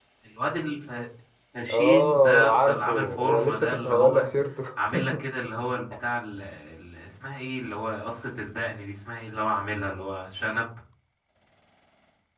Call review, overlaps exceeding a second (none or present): present